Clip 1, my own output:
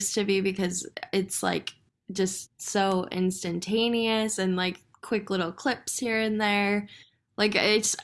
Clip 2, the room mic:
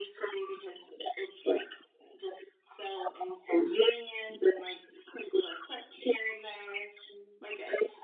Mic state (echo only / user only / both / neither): echo only